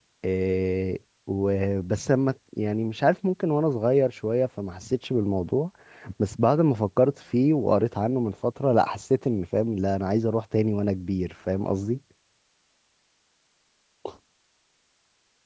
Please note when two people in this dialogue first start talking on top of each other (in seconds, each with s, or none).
none